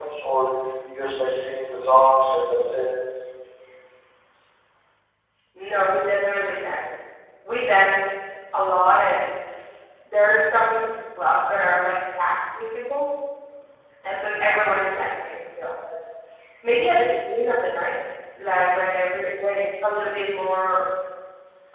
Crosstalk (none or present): none